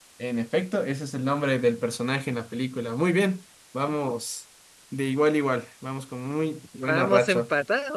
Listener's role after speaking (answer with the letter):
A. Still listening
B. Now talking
B